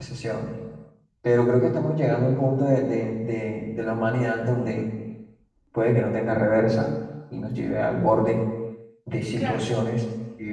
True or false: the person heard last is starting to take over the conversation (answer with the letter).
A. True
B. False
B